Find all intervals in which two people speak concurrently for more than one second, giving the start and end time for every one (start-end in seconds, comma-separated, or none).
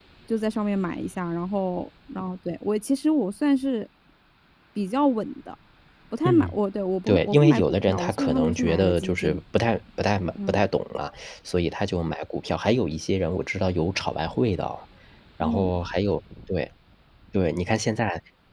7.1-9.4